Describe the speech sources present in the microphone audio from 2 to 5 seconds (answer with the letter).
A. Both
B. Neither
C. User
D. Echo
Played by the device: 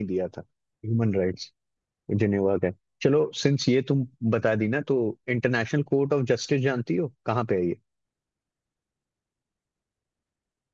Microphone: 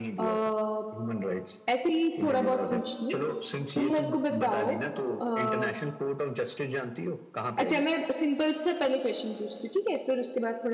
A